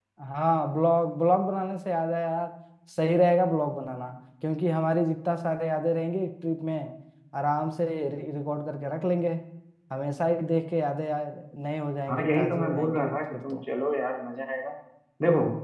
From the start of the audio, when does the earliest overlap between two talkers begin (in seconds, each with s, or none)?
12.1 s